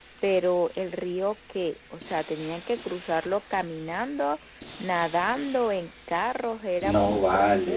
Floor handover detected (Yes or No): Yes